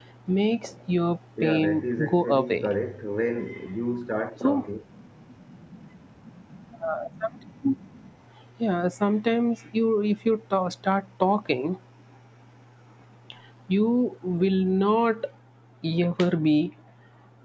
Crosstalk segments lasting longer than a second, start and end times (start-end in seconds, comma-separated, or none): 1.4-2.7